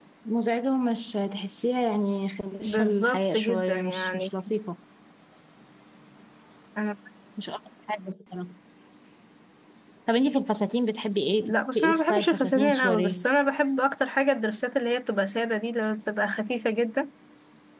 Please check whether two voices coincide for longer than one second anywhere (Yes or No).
Yes